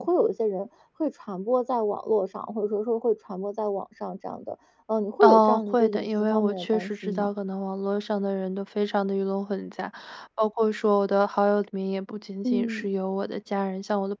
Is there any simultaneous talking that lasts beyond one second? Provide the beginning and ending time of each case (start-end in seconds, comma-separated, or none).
5.2-7.3